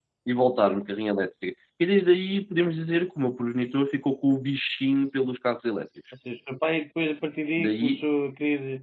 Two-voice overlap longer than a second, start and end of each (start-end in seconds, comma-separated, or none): none